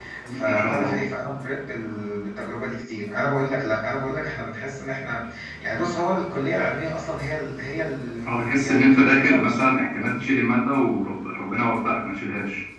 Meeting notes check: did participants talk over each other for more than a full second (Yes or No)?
Yes